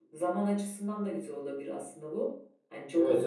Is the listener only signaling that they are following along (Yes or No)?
No